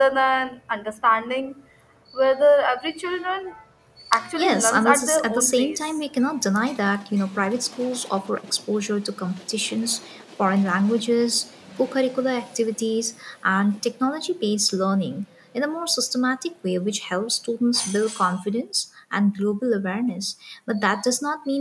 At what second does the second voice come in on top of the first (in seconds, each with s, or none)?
4.4 s